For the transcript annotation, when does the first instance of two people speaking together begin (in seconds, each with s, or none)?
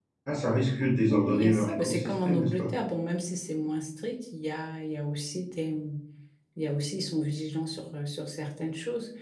1.1 s